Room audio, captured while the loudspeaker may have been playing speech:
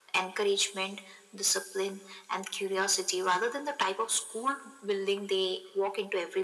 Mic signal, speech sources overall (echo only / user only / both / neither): echo only